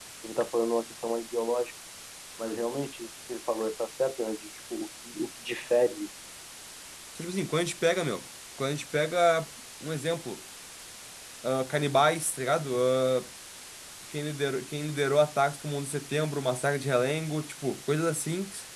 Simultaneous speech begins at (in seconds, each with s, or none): none